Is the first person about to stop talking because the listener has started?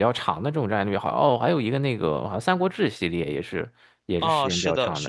Yes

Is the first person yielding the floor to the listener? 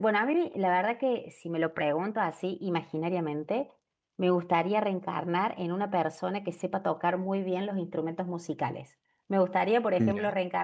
No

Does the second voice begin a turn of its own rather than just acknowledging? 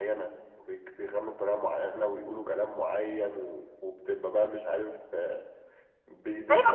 Yes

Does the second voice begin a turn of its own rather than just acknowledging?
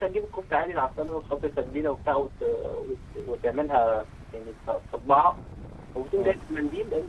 No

